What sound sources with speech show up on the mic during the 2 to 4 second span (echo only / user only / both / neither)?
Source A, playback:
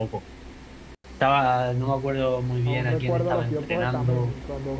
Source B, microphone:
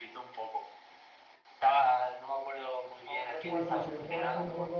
both